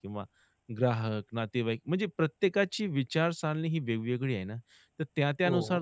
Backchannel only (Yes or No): Yes